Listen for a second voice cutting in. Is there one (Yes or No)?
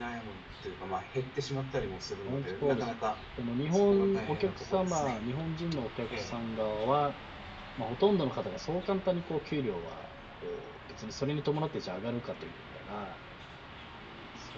Yes